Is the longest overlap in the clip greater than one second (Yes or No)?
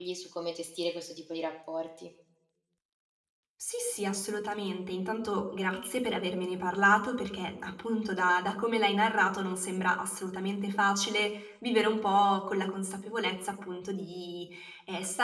No